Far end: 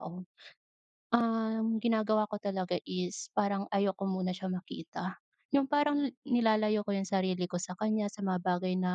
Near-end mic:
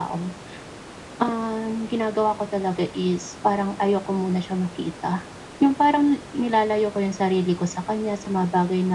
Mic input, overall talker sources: echo only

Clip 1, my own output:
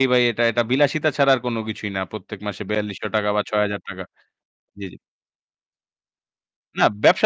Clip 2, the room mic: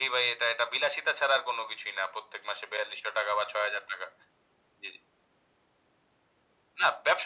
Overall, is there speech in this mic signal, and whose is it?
echo only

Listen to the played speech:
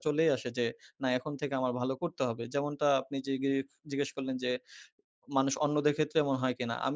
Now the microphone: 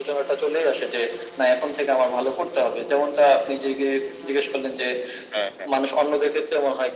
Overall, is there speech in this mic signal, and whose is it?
both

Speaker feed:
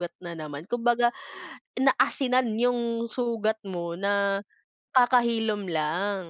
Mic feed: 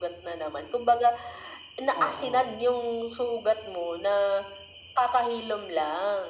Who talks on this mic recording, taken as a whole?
both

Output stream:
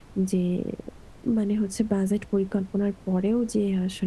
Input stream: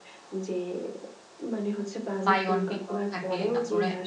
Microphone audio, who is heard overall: both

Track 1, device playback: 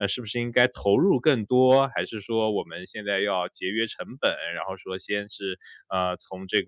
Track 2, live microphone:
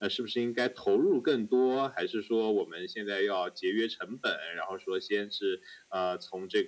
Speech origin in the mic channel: echo only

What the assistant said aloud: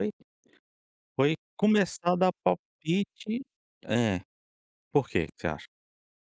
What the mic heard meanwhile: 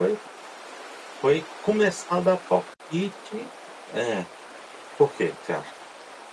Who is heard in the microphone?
echo only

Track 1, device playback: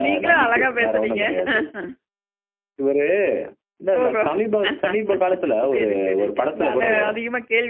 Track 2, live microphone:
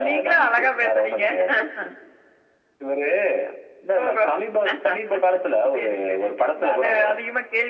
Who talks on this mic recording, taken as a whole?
echo only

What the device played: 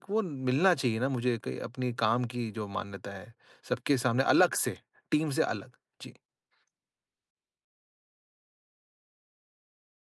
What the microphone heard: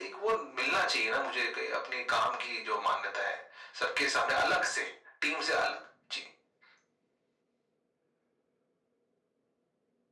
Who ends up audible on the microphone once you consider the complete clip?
echo only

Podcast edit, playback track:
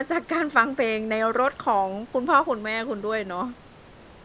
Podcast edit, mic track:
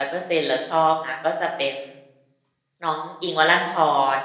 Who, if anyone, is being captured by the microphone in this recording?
user only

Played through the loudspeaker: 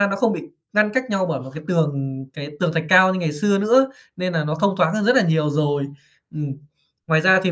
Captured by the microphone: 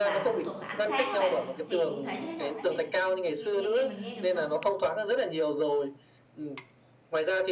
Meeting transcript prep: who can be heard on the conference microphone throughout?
both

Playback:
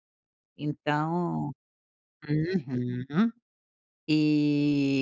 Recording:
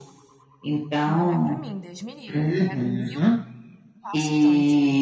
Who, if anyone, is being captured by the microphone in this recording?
both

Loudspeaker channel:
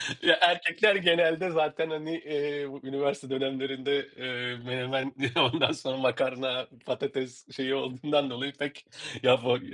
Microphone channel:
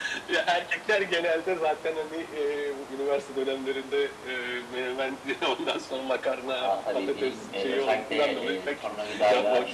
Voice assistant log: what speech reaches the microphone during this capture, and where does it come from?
both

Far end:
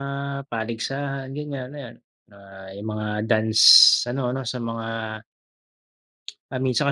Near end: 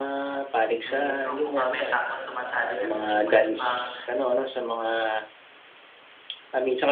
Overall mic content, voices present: both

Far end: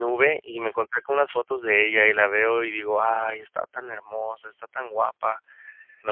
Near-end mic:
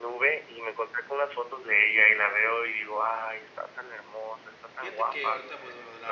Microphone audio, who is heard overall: both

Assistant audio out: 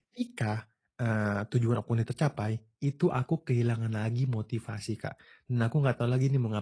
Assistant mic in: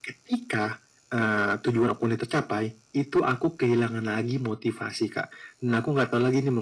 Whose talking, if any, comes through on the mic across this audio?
echo only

